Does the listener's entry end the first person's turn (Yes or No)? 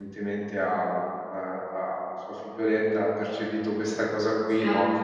No